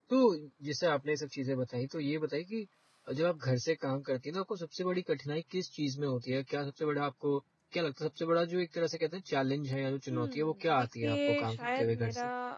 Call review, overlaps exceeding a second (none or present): present